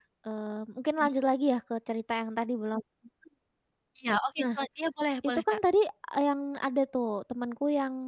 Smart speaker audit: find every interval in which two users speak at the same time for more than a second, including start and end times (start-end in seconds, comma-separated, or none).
none